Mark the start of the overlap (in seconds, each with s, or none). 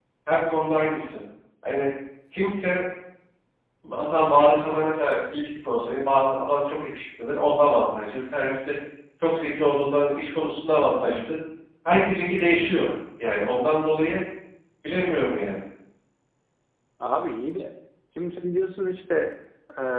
none